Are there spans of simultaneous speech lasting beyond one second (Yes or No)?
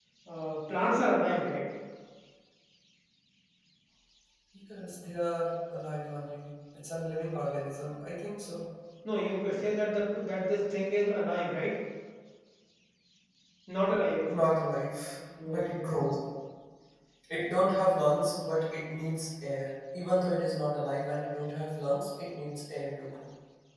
No